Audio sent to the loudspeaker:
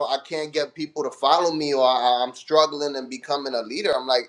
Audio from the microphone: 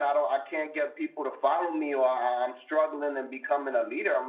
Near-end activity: none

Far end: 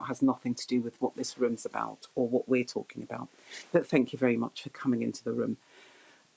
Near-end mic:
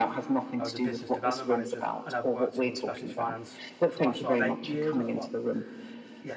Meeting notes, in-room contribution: present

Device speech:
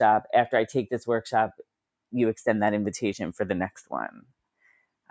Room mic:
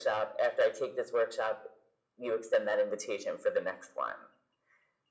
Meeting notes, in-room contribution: none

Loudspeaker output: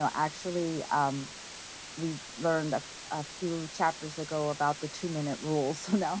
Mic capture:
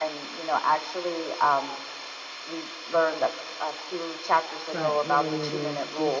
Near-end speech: present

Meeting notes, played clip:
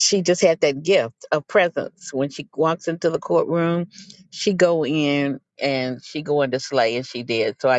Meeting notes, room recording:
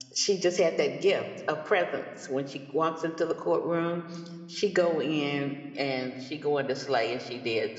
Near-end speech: none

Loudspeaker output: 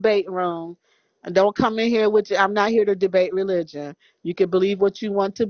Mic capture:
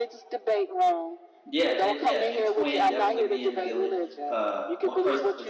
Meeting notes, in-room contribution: present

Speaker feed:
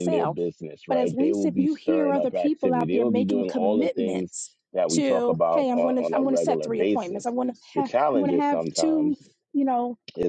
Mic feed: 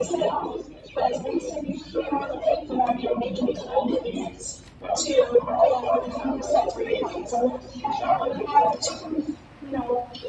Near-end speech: none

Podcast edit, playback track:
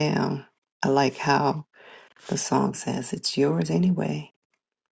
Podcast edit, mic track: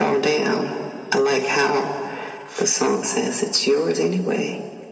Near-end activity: none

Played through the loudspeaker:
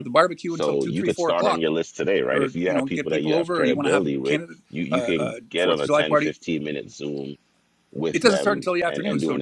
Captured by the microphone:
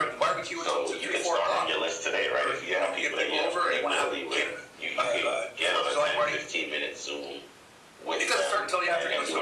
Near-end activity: none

